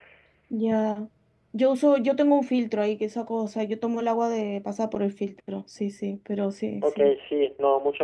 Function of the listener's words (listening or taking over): taking over